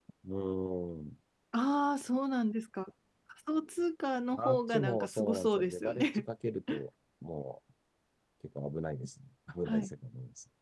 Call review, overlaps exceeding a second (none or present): present